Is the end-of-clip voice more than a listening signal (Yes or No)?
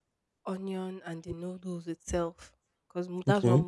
No